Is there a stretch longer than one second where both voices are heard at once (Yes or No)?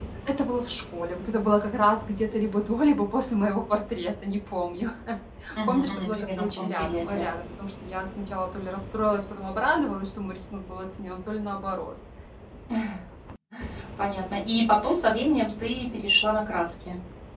Yes